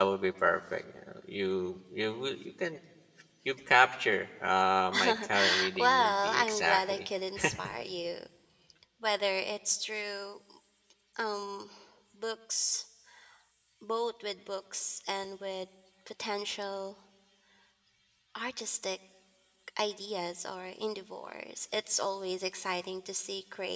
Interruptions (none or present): present